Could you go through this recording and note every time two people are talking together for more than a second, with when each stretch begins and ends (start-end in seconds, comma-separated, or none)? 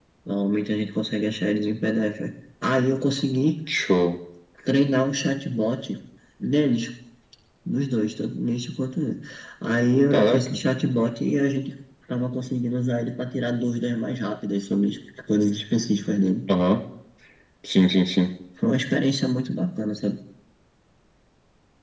none